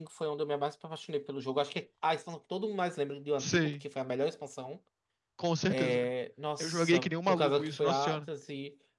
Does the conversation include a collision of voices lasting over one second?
Yes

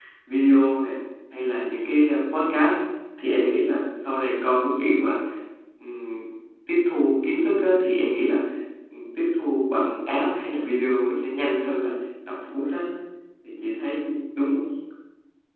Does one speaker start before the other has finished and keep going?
No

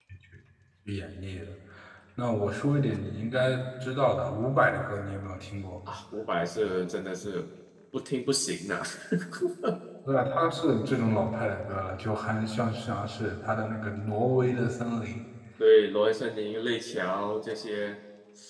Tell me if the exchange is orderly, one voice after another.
Yes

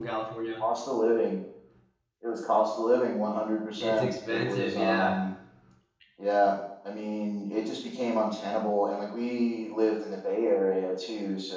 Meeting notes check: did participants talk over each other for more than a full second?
Yes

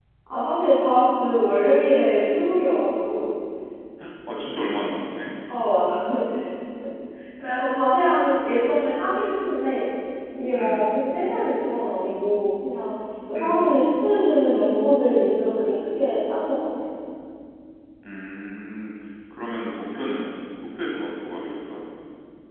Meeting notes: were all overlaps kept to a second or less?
Yes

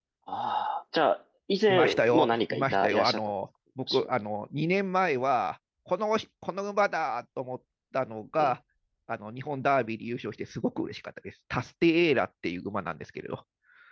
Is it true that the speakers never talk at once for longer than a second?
No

